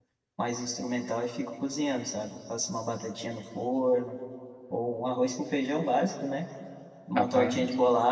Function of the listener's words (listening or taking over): listening